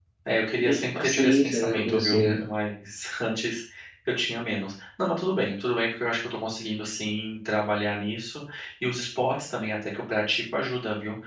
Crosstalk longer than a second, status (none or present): present